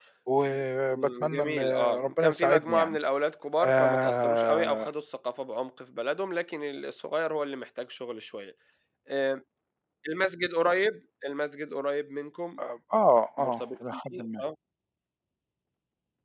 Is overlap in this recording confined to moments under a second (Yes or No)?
No